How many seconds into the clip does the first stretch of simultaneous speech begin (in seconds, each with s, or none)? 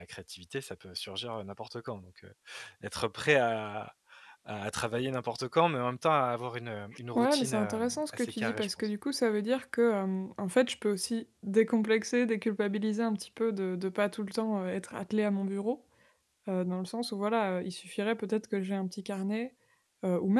7.2 s